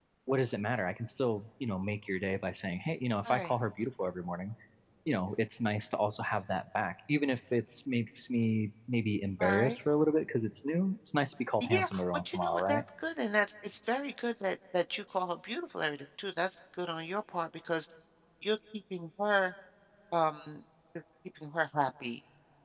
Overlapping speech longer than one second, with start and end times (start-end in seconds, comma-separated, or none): 11.6-12.8